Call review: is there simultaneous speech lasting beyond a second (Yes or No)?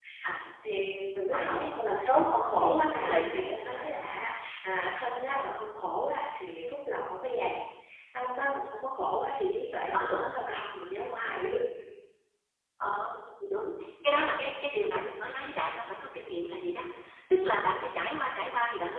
Yes